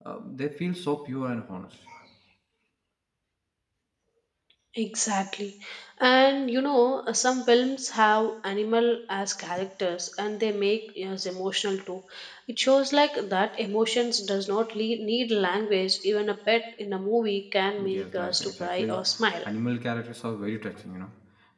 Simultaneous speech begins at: 17.8 s

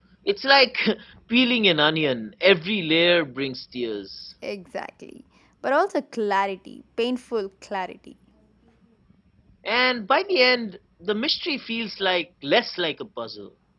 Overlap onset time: none

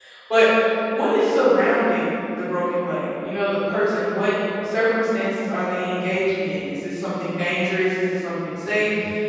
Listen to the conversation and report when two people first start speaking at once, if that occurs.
none

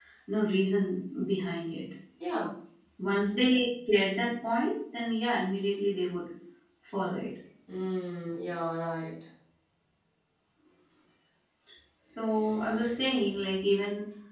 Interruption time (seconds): none

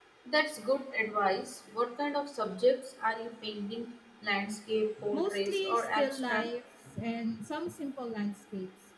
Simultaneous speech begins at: 5.0 s

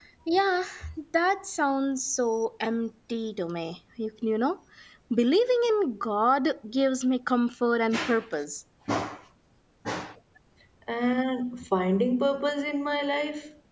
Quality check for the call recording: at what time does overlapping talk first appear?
none

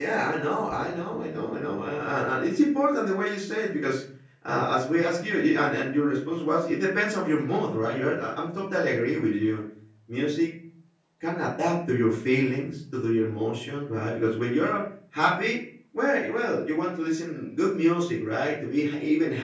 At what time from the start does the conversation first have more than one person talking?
none

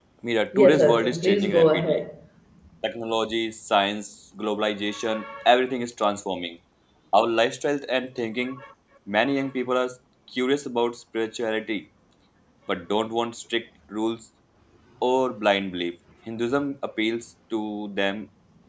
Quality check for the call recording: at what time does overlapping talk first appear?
0.5 s

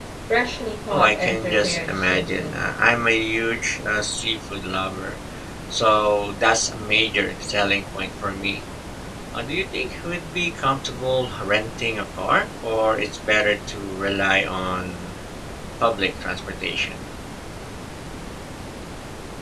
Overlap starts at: 0.9 s

